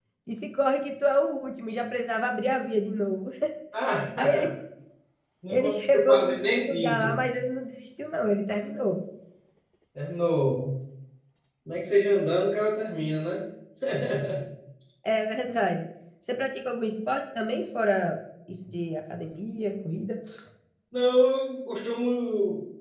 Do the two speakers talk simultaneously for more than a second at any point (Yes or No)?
Yes